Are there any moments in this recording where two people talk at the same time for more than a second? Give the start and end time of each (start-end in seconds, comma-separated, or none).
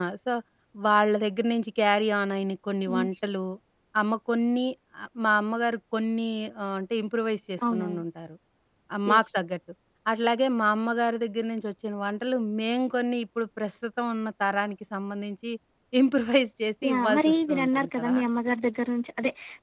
16.8-18.2